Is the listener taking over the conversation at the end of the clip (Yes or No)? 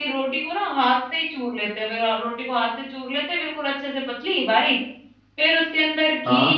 No